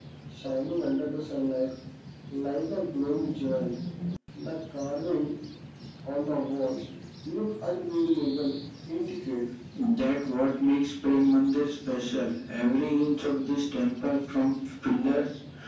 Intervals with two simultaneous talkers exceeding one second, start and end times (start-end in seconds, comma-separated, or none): none